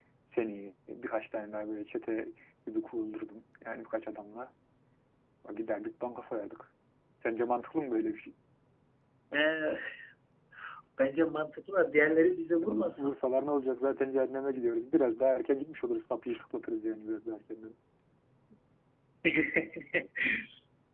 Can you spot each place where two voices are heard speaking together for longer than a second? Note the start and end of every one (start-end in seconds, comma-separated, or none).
none